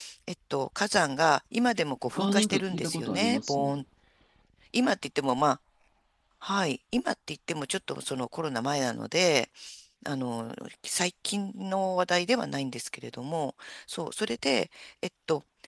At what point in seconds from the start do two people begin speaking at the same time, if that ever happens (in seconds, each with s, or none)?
2.2 s